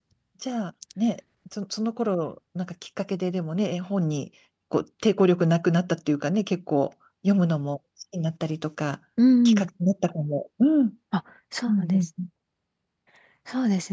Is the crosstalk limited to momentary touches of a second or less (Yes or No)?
Yes